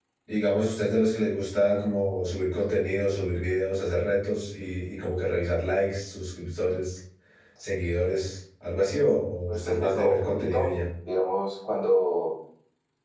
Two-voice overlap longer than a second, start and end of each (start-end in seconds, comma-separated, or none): 9.5-10.7